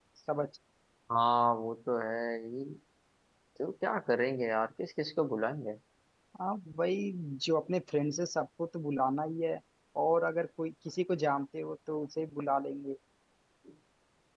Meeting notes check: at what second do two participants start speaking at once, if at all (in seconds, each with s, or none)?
none